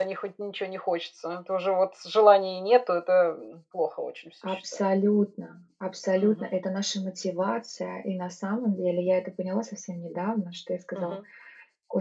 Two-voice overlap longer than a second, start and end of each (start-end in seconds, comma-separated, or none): none